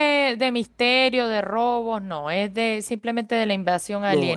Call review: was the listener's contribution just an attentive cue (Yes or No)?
No